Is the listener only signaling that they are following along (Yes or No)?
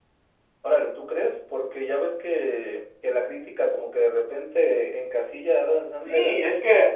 No